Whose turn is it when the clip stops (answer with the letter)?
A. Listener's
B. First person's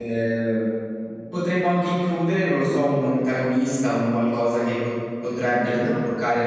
B